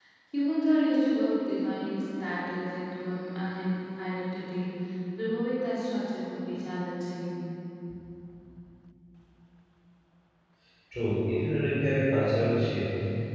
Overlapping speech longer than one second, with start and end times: none

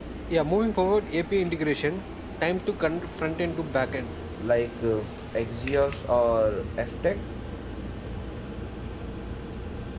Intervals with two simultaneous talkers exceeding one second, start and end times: none

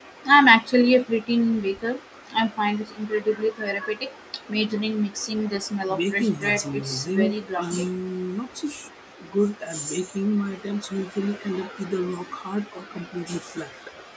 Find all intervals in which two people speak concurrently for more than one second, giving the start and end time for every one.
5.9-7.6

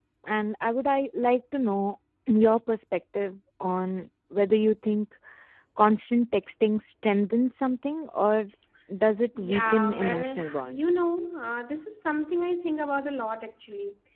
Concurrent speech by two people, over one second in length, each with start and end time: 9.4-10.9

